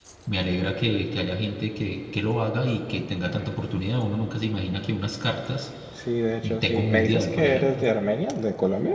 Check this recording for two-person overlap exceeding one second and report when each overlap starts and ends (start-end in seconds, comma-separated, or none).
6.6-7.8